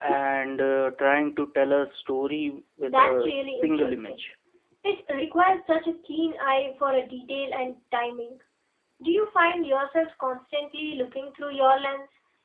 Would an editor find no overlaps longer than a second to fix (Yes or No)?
No